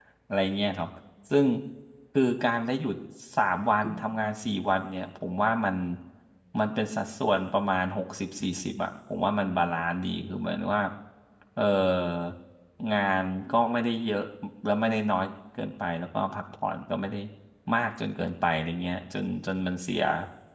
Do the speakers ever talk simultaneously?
No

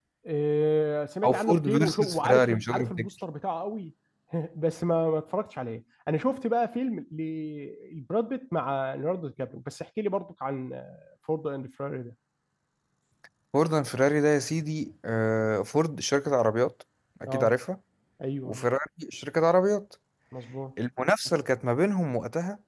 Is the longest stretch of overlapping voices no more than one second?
No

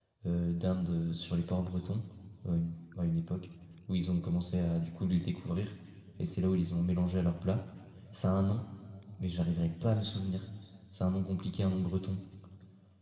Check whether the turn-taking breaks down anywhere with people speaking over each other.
No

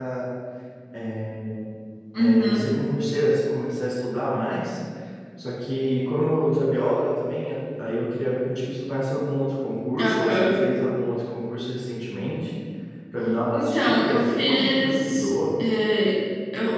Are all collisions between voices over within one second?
No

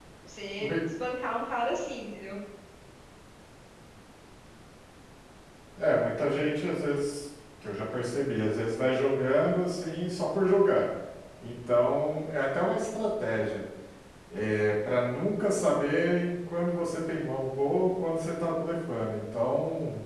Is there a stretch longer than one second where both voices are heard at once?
No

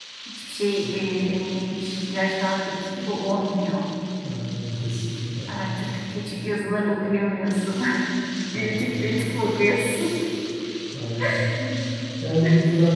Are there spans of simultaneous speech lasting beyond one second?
No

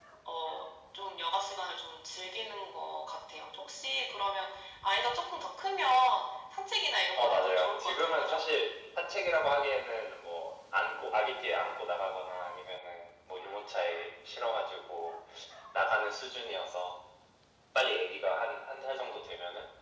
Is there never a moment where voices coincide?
No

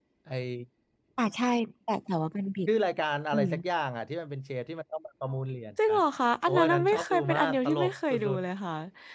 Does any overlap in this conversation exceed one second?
Yes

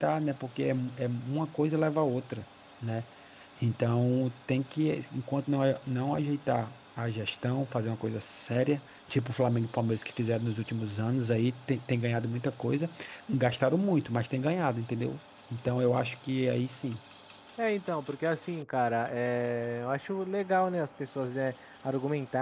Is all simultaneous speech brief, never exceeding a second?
Yes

